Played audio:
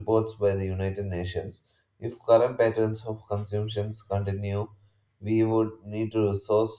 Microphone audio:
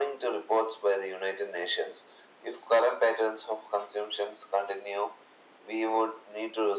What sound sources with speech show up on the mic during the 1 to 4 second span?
echo only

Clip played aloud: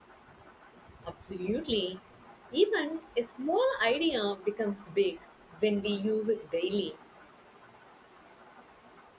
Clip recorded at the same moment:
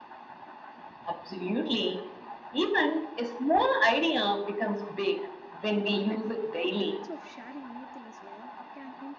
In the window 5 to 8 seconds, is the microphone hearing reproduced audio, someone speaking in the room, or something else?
both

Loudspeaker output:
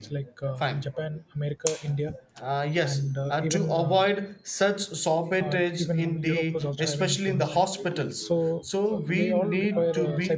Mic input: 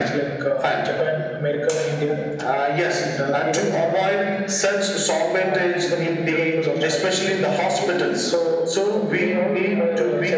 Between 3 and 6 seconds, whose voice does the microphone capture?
echo only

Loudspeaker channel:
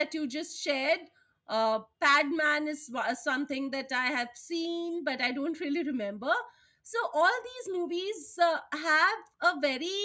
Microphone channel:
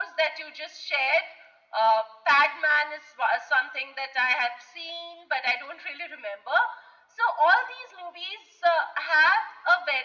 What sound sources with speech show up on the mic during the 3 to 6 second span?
echo only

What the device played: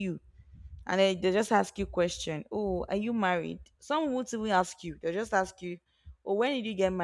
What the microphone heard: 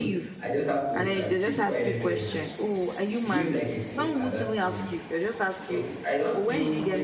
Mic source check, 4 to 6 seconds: both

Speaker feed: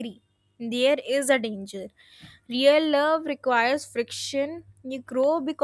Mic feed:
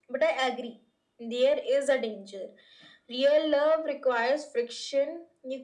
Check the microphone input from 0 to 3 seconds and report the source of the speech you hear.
echo only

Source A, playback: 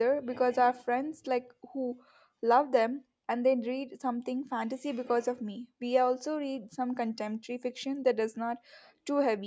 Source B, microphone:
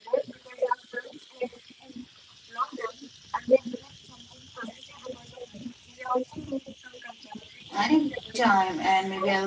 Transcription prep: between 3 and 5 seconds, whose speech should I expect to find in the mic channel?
echo only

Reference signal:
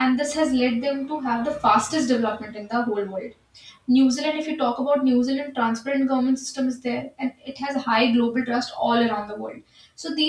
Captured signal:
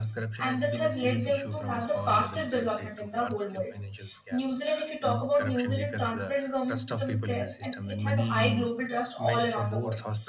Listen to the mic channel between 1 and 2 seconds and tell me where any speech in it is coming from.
both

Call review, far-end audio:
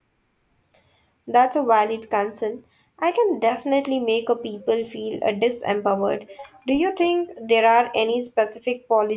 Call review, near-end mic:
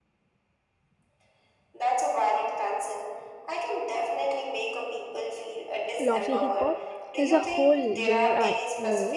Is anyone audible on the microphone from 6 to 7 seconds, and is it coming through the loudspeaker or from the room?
both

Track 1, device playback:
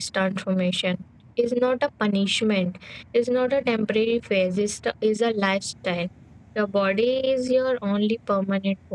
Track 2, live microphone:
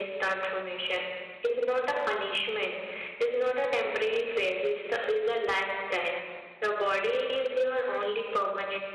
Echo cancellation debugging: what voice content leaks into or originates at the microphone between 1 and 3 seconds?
echo only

